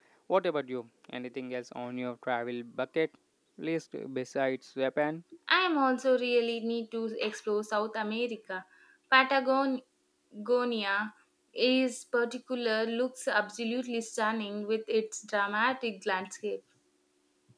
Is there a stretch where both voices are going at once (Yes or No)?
No